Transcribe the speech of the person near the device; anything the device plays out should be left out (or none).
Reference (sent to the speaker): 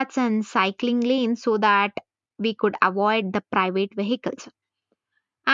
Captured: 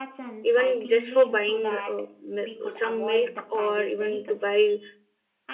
even just for buying uh, mi- some milk or even to buy